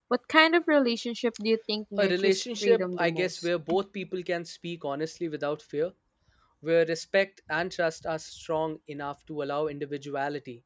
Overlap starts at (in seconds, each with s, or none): 2.0 s